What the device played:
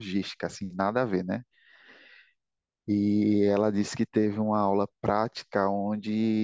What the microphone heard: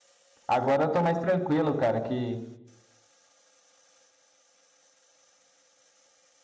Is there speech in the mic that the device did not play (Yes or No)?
Yes